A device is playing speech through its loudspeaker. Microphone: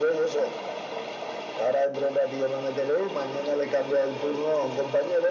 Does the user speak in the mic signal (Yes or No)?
No